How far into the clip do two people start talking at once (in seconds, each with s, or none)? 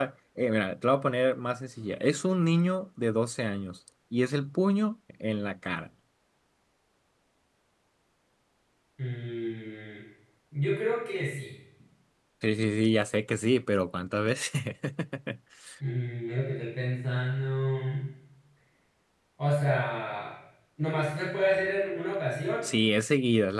none